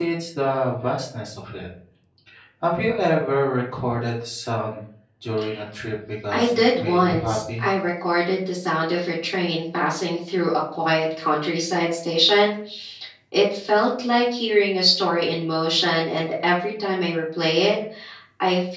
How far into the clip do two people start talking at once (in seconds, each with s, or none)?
6.3 s